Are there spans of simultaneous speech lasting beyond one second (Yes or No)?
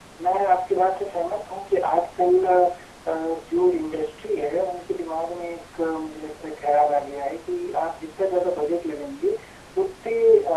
No